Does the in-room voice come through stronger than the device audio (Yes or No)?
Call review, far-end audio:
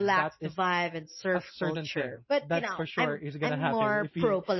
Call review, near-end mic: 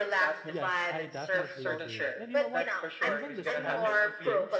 No